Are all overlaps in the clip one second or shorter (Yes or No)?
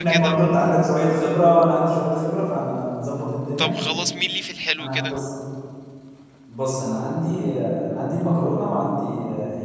Yes